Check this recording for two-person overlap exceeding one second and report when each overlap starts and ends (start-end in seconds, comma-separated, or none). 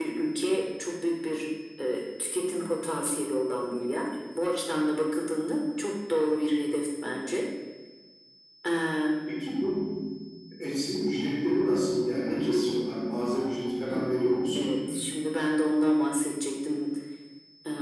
none